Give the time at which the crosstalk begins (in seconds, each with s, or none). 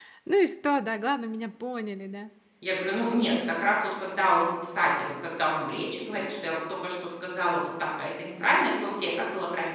none